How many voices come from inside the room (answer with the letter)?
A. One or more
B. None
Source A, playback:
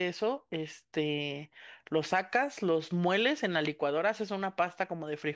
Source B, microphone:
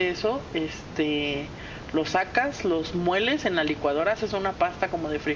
B